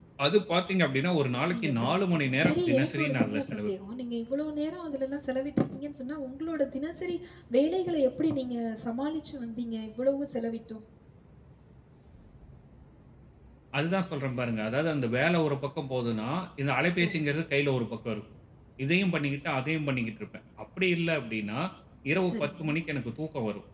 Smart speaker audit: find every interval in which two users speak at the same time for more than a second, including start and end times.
1.5-3.7

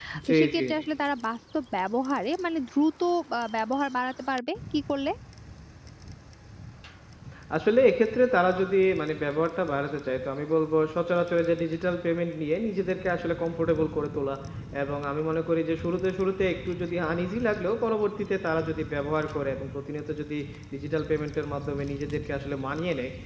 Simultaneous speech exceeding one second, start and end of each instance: none

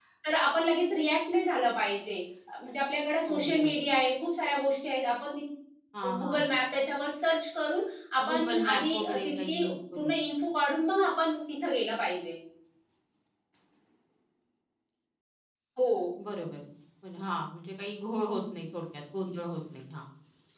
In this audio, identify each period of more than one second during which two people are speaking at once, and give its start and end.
8.3-10.1

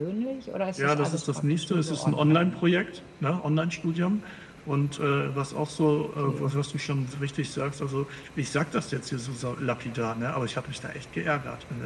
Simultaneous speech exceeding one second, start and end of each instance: 0.8-2.6

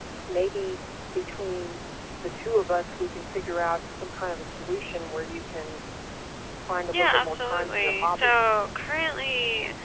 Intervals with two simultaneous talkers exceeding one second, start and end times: 6.9-8.4

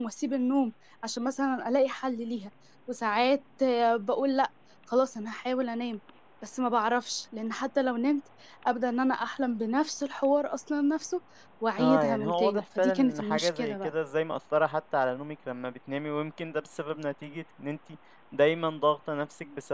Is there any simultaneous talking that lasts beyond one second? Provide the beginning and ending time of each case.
11.8-13.9

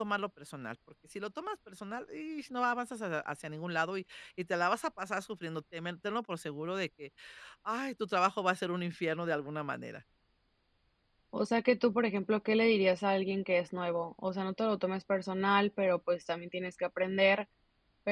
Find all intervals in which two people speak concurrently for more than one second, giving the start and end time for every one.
none

